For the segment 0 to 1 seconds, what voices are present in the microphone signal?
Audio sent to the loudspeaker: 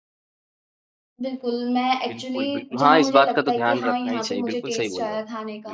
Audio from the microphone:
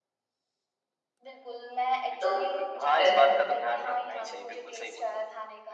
neither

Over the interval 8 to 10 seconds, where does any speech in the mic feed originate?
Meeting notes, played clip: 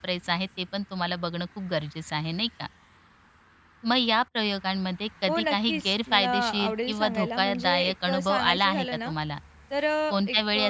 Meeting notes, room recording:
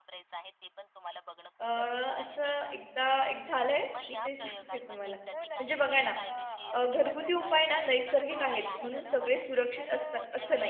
both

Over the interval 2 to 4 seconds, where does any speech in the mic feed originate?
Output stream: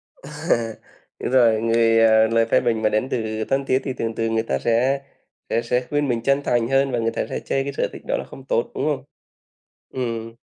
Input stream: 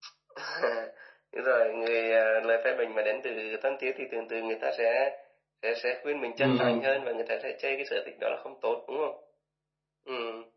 echo only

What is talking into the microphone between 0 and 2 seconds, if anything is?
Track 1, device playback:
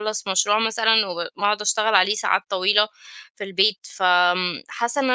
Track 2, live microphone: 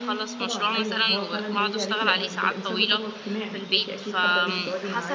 both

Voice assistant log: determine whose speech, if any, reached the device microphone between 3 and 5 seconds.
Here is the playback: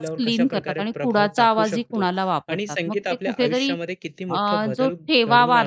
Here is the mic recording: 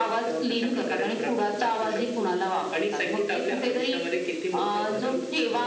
echo only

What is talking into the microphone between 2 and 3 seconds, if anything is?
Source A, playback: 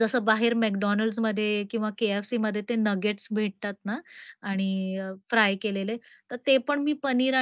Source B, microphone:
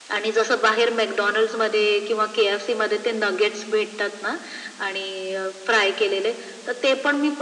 echo only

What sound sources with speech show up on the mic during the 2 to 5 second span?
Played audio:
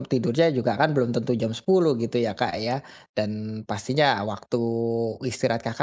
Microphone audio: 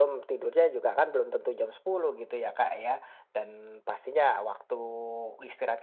echo only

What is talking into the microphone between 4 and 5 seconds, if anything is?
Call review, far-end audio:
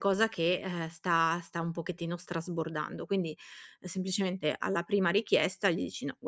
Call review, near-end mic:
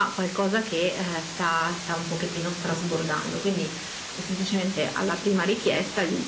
echo only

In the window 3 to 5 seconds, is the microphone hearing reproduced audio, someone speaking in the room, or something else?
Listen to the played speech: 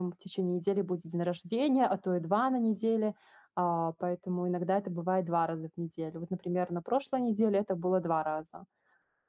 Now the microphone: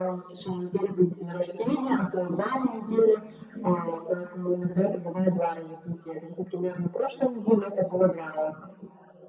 echo only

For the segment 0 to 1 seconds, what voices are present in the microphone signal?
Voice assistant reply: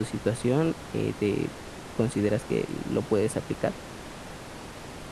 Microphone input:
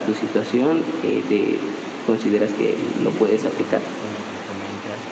echo only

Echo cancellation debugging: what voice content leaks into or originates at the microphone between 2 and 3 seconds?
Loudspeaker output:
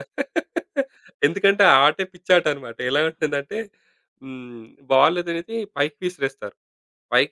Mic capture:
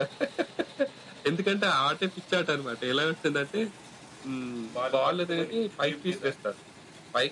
echo only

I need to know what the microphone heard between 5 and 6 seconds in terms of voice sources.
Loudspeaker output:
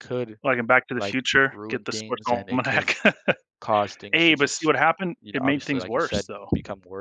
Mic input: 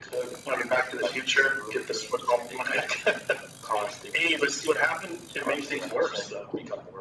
echo only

